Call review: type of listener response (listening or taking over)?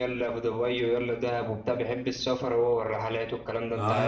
taking over